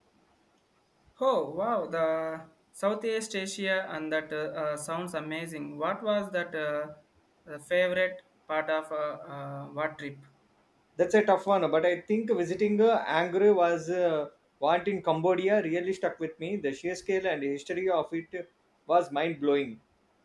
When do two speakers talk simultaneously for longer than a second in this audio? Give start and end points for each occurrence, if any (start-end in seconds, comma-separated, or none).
none